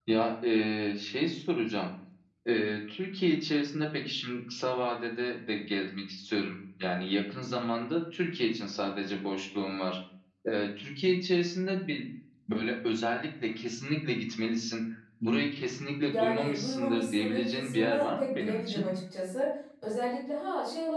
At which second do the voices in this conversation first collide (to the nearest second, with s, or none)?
16 s